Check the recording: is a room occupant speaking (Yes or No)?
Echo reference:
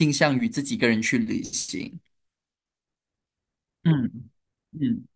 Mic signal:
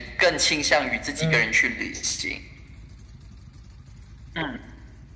Yes